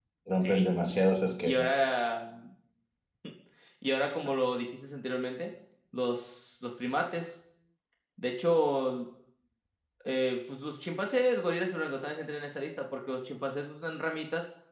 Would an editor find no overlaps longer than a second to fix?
Yes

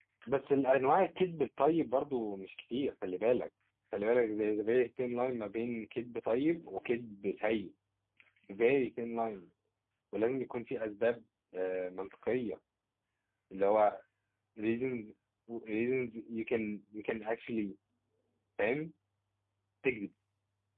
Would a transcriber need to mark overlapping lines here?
No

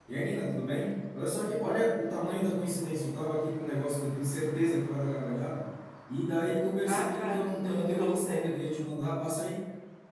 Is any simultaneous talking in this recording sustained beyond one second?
Yes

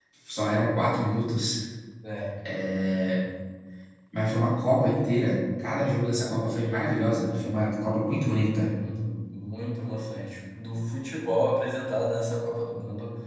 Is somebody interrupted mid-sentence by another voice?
No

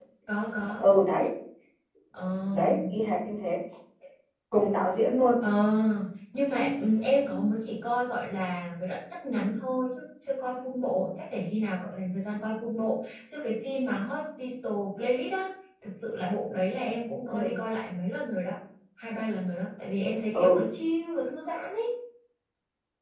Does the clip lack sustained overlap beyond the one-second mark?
Yes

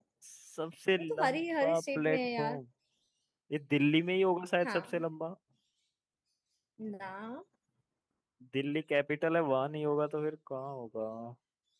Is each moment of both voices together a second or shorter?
No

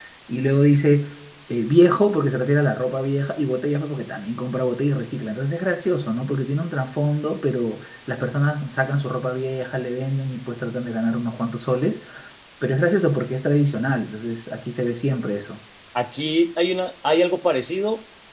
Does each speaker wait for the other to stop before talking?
Yes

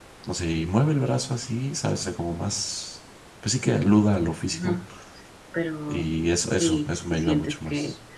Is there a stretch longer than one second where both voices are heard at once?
Yes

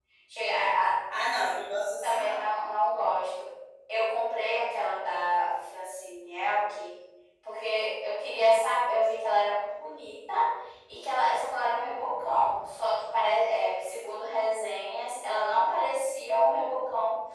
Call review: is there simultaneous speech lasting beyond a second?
No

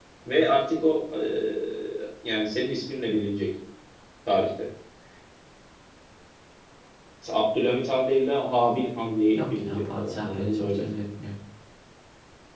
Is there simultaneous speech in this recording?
Yes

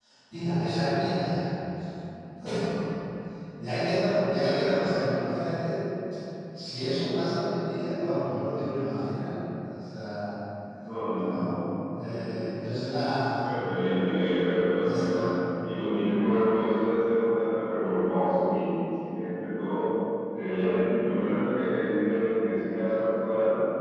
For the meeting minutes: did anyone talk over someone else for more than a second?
No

